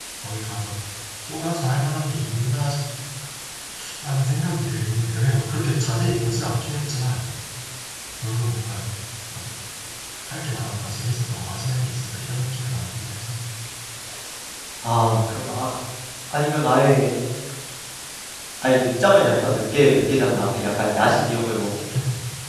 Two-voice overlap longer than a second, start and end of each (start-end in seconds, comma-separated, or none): none